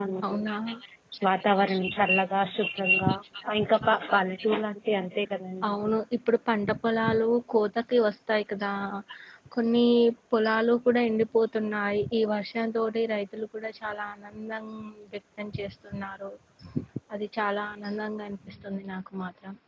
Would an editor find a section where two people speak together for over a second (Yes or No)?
No